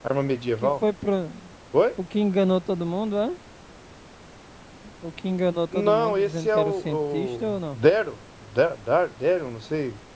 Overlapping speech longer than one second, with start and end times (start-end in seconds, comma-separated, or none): 5.7-7.8